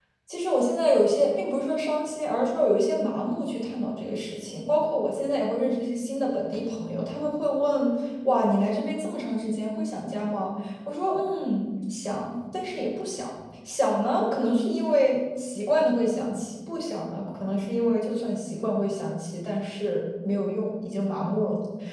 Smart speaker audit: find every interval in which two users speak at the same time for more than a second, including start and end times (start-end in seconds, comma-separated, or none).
none